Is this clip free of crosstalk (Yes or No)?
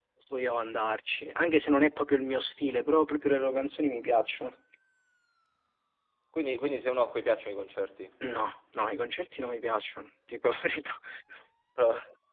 Yes